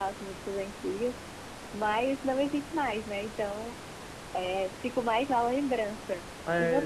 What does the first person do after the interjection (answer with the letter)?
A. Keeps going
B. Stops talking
B